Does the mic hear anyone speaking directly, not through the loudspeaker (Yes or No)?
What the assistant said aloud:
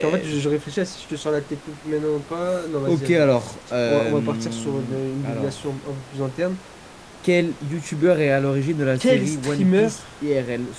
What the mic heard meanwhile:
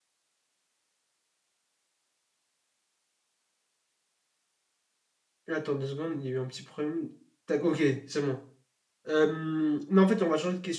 Yes